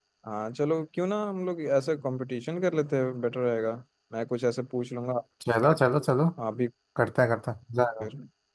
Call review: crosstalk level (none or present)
none